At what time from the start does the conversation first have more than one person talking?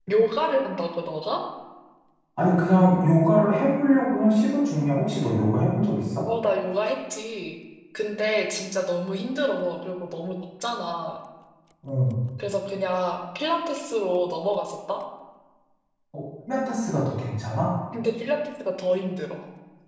none

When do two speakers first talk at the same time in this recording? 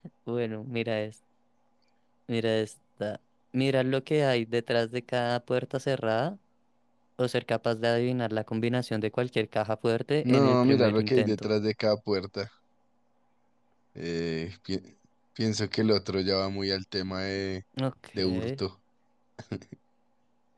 10 s

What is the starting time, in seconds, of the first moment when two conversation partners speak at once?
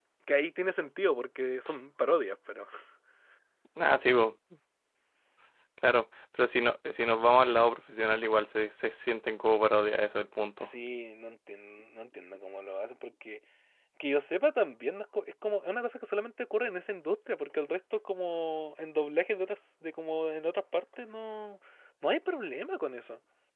none

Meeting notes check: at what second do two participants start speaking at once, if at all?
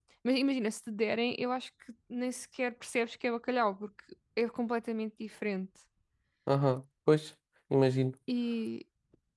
none

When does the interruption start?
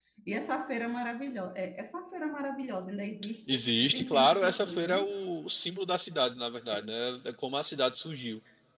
3 s

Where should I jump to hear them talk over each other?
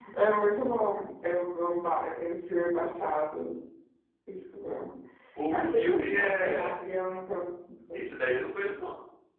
6 s

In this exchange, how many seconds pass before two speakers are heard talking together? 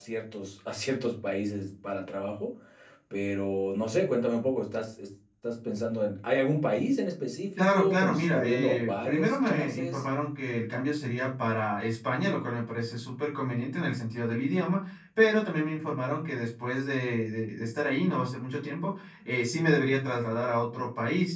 8 s

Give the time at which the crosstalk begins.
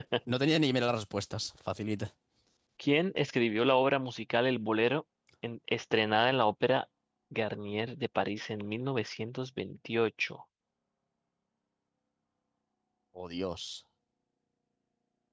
none

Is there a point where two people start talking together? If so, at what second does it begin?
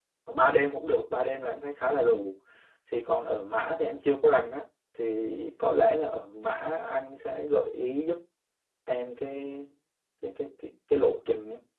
none

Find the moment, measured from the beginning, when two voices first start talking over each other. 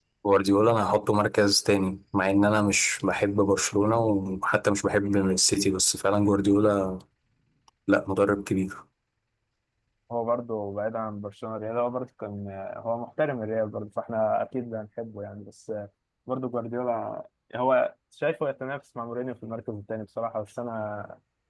none

